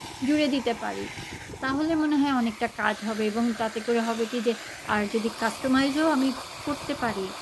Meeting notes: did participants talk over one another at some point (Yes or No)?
No